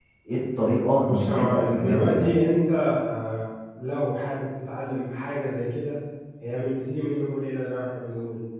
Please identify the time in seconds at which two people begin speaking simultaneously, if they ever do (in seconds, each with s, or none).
0.9 s